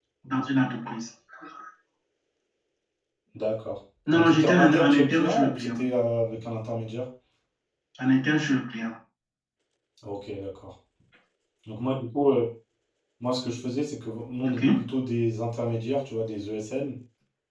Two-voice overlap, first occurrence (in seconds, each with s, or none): 4.1 s